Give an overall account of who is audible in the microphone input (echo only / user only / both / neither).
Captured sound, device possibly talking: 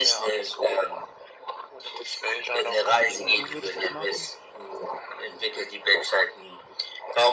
both